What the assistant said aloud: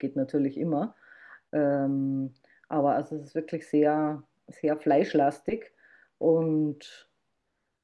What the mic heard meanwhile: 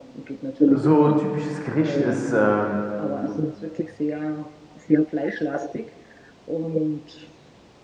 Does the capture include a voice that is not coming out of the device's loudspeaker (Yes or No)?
Yes